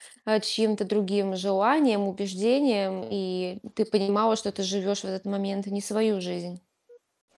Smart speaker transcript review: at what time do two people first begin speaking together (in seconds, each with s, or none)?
none